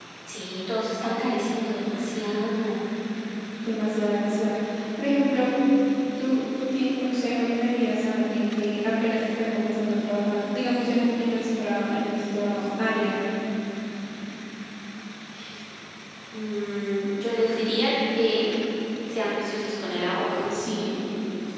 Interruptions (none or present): none